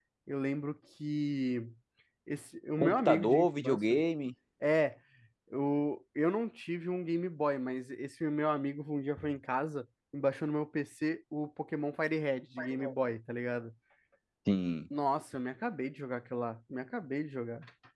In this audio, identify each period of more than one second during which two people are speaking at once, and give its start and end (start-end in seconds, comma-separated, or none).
2.8-4.0